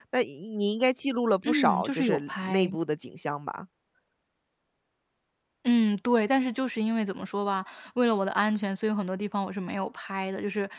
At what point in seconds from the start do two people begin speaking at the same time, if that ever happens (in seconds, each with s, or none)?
1.4 s